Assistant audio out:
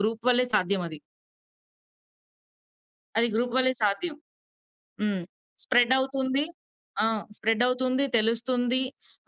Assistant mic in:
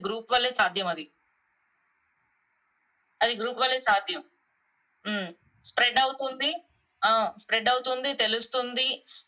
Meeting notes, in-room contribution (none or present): none